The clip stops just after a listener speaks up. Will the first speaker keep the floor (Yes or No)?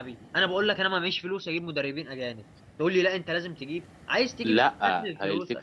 No